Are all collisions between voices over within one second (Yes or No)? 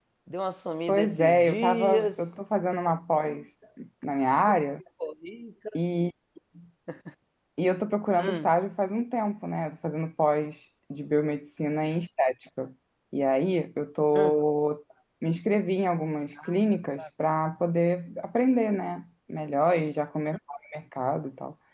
No